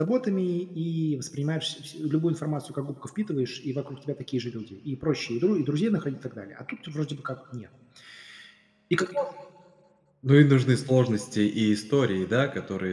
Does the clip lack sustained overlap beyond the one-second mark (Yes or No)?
Yes